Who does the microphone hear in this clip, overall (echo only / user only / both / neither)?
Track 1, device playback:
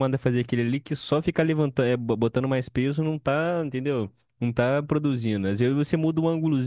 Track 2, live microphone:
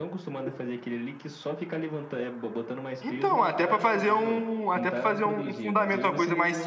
both